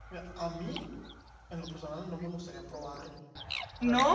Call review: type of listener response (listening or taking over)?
listening